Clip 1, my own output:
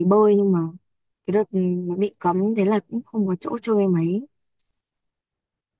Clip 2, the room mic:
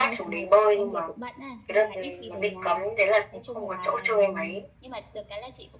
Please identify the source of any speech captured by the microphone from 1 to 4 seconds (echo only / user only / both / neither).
both